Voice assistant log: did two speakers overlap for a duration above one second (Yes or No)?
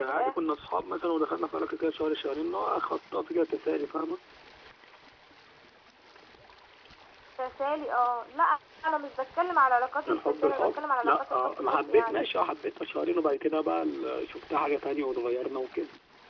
Yes